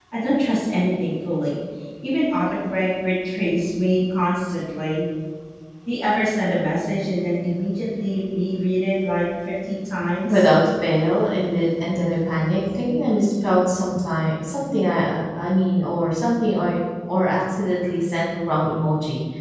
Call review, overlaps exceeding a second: none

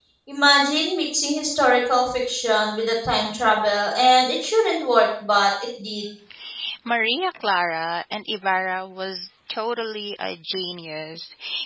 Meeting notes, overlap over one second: none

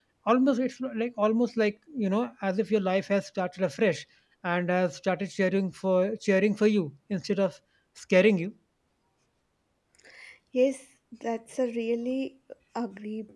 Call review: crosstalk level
none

